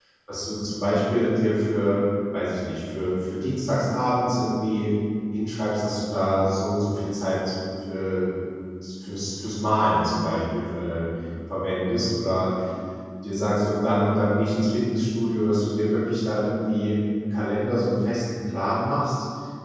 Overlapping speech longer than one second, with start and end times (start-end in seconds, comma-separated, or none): none